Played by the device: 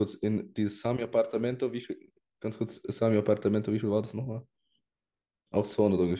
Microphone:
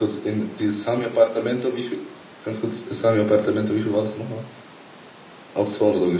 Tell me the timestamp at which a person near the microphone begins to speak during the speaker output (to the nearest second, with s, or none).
none